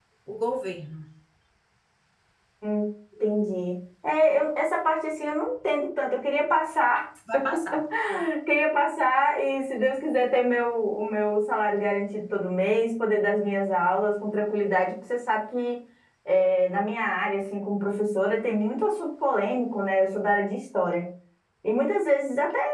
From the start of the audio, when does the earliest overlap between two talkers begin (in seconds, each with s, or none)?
none